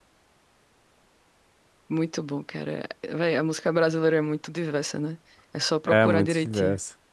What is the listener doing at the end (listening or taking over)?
taking over